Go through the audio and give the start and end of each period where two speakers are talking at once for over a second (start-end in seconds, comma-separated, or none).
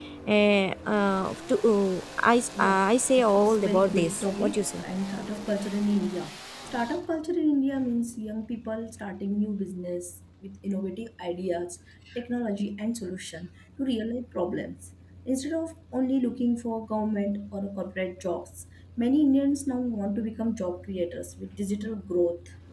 3.2-4.8